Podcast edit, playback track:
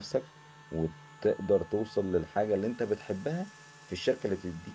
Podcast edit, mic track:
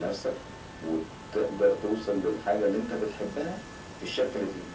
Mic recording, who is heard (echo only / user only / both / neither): echo only